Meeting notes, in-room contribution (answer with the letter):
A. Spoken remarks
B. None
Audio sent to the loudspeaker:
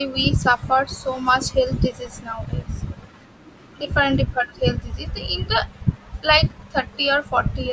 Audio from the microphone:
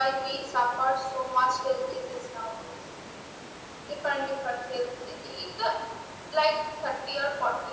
B